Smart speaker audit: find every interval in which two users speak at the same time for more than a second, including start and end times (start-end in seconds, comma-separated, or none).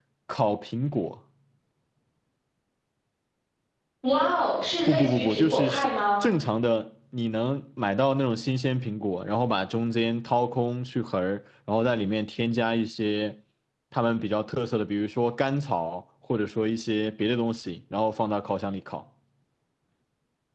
4.9-6.2